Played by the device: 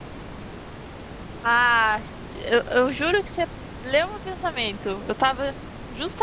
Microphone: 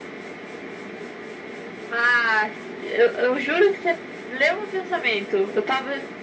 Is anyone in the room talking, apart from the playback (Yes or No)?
No